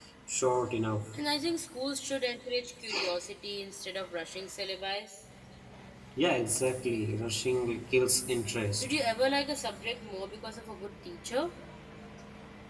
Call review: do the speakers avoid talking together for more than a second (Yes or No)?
Yes